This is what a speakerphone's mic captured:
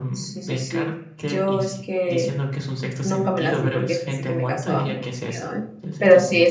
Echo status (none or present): present